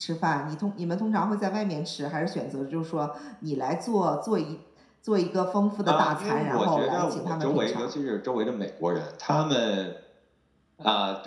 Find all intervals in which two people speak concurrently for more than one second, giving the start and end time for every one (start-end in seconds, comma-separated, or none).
5.8-7.9